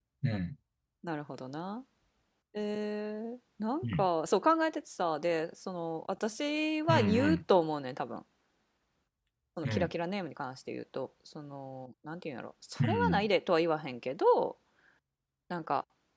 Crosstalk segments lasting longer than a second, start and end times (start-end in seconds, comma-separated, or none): none